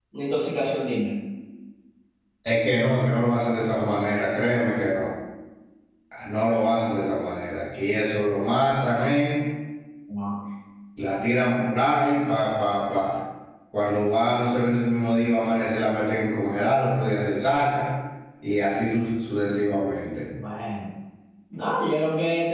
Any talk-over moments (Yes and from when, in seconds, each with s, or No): No